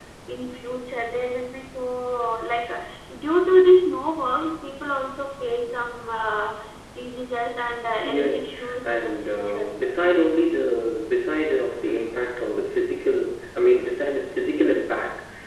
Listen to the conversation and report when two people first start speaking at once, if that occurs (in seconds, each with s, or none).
8.0 s